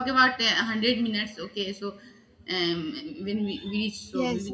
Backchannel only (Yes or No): No